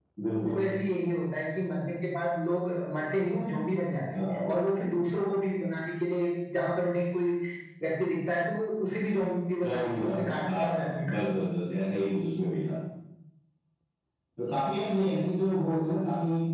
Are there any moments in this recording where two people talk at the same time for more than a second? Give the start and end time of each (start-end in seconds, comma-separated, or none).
9.6-11.2